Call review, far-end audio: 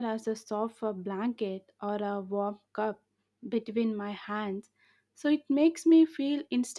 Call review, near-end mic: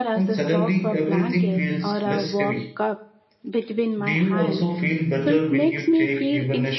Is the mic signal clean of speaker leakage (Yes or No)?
No